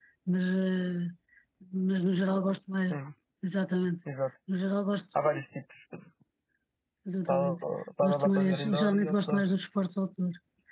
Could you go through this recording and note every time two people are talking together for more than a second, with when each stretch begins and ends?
8.0-9.4

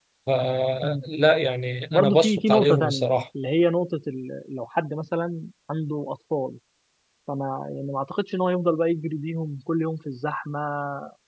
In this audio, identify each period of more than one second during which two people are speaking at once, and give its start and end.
1.9-3.2

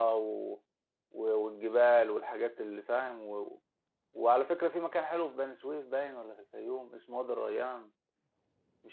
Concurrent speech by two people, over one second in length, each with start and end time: none

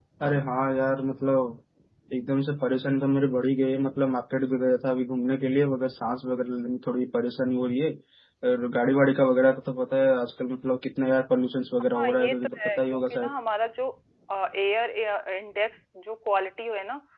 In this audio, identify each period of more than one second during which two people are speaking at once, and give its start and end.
11.9-13.3

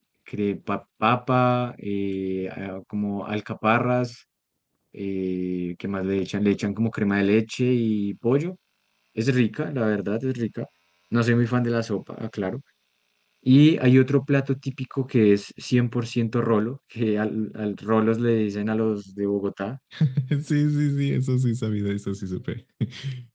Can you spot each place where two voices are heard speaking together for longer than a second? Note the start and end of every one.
none

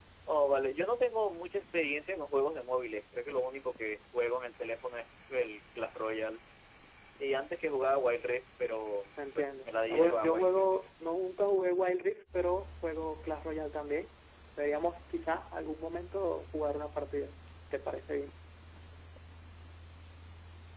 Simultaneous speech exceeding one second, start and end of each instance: 9.3-10.6

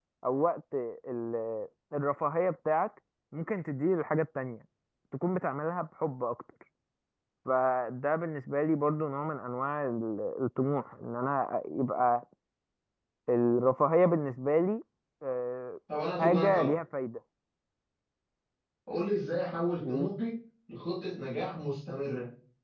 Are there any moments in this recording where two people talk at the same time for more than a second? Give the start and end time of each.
none

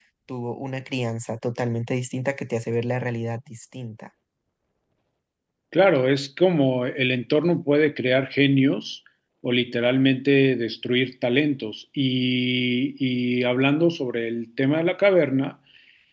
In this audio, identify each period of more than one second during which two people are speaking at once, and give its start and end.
none

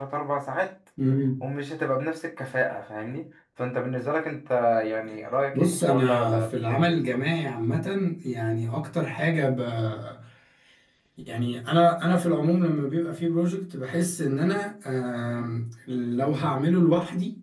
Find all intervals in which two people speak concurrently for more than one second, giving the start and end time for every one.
5.5-7.2

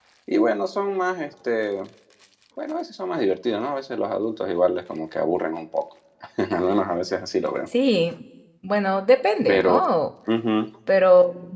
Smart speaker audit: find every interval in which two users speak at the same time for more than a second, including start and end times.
none

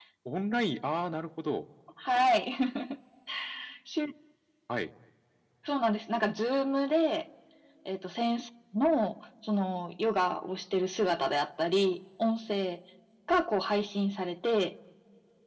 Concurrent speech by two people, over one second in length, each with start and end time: none

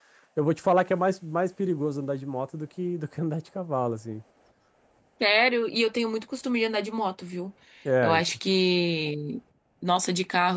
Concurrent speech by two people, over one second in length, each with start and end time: none

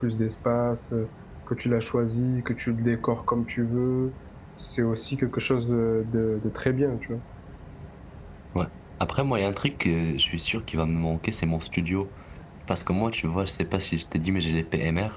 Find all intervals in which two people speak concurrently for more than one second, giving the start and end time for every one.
none

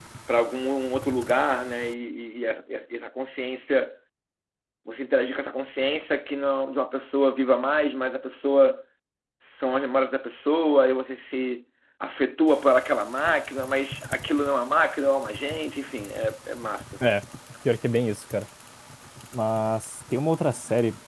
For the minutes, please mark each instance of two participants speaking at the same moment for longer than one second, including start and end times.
none

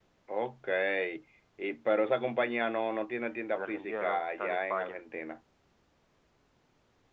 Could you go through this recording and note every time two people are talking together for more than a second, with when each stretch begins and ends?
3.6-5.0

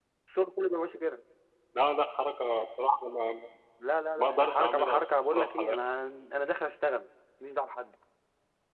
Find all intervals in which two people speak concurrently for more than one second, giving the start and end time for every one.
4.2-5.6

